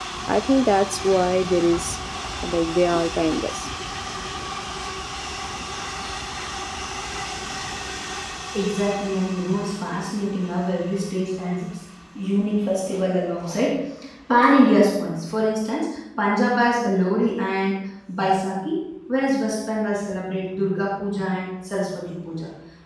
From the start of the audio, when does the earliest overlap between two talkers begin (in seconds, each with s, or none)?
none